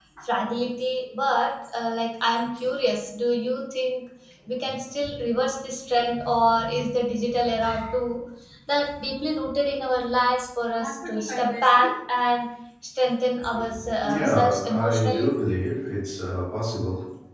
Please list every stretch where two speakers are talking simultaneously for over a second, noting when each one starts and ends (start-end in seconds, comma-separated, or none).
14.0-15.3